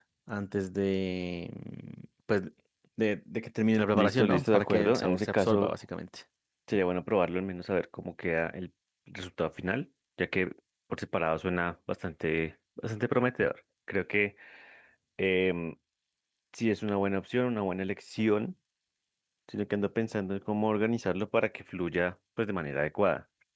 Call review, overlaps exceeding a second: present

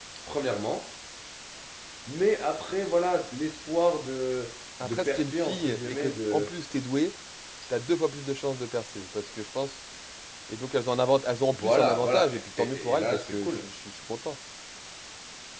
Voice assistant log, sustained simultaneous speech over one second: present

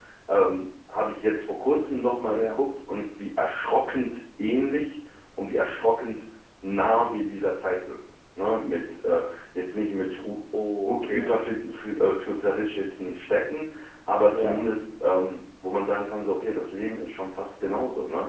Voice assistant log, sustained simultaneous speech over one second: none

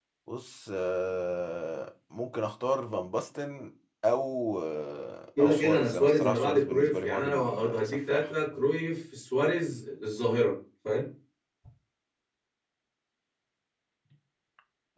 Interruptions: present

